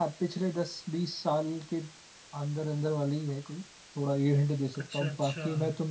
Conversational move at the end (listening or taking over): listening